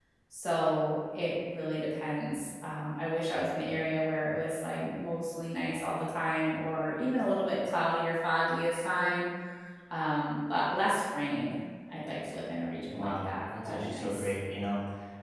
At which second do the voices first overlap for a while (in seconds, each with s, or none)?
12.9 s